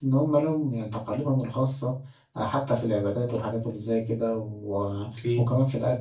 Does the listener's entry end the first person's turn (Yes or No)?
No